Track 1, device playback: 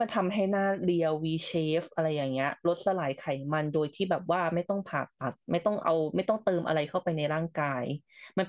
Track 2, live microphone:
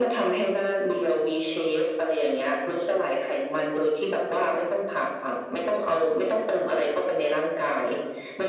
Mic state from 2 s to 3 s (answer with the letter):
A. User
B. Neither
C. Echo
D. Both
C